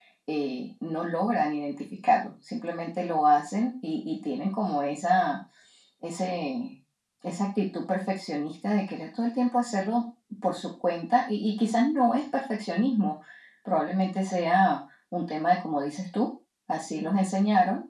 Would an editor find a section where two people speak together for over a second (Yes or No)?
No